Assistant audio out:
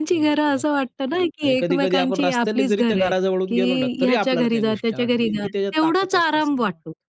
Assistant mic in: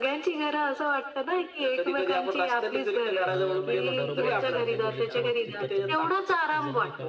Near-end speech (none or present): present